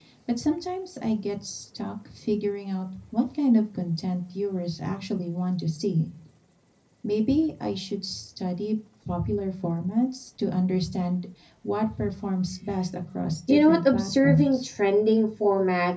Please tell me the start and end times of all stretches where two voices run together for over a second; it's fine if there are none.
13.5-14.7

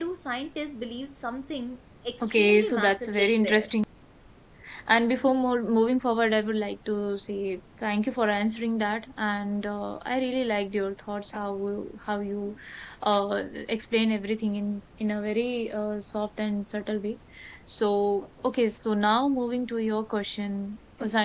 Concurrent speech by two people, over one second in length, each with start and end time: 2.2-3.7

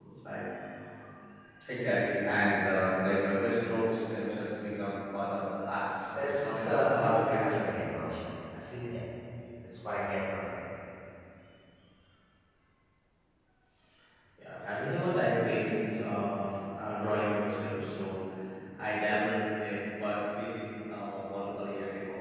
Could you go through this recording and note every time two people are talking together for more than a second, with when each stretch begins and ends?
6.1-7.7

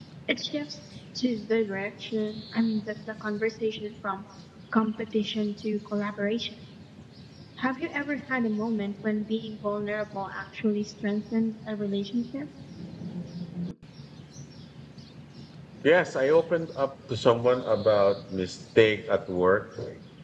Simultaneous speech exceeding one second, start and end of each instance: none

